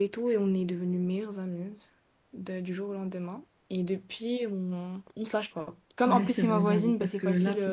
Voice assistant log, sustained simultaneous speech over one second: present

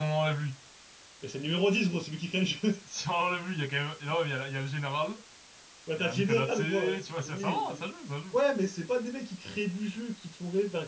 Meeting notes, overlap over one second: present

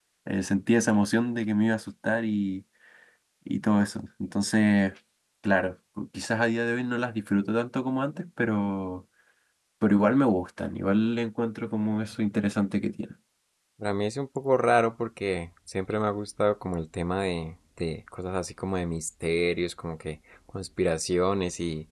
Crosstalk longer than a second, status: none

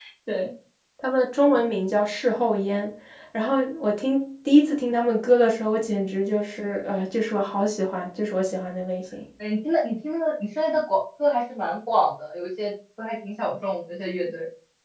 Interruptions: none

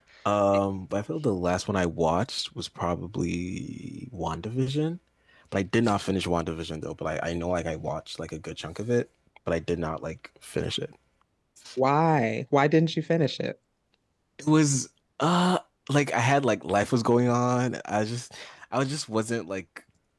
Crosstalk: none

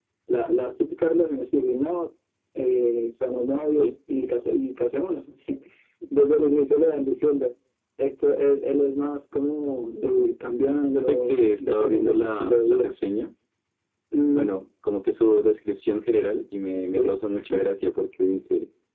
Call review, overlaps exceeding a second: present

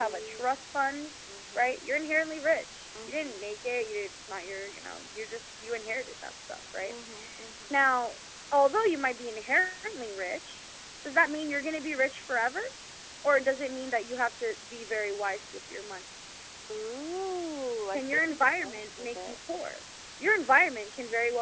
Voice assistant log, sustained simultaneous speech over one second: present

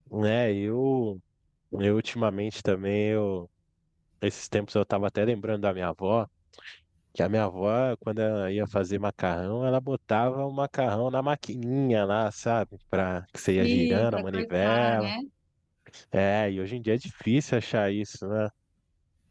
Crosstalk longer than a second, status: present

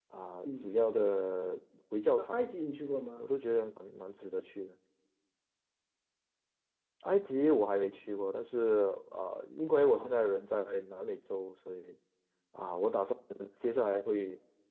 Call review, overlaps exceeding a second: none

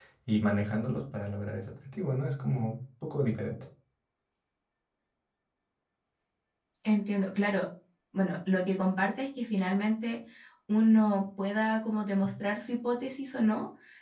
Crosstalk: none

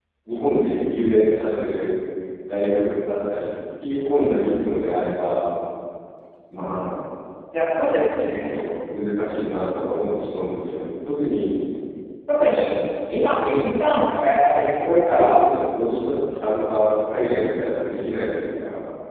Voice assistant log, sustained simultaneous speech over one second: none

